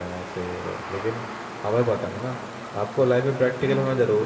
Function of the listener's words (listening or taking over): listening